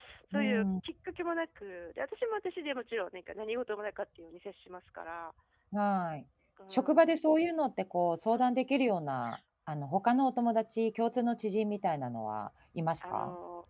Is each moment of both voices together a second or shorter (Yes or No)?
Yes